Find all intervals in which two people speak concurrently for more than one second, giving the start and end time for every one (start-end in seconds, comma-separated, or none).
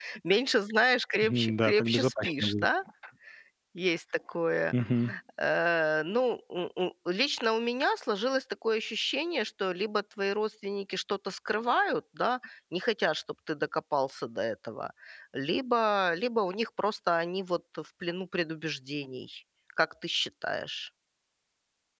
1.2-2.7